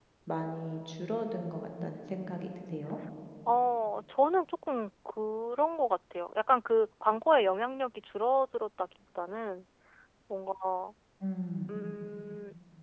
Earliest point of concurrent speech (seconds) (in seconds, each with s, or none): none